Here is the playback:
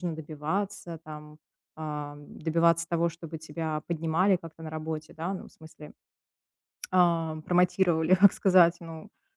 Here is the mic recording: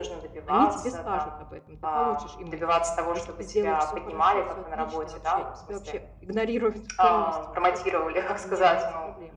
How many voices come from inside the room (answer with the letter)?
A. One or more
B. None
A